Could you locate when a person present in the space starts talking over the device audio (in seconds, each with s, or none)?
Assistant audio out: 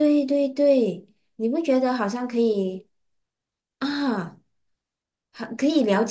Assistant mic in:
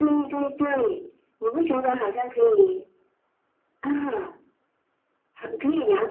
none